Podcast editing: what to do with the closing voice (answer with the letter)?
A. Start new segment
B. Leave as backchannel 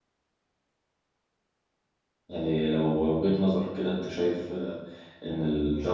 A